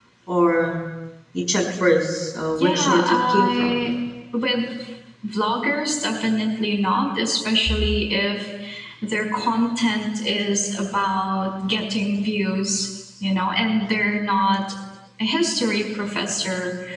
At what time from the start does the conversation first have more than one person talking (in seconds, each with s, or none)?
2.6 s